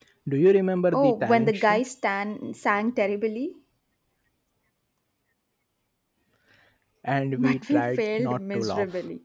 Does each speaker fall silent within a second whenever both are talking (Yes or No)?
No